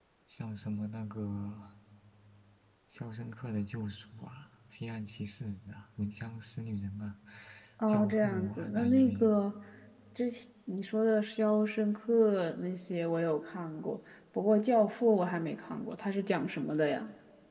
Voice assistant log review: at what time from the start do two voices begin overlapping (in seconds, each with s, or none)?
7.9 s